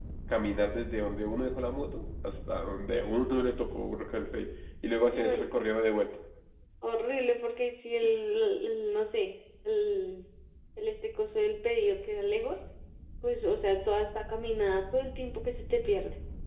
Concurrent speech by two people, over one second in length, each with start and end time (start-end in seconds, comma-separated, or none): none